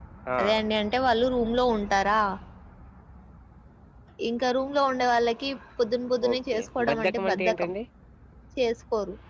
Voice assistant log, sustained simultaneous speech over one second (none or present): present